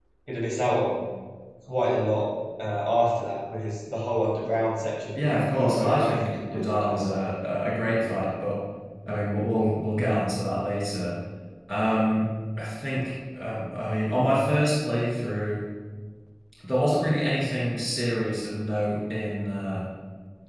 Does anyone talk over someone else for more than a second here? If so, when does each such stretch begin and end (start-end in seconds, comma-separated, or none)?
5.2-7.3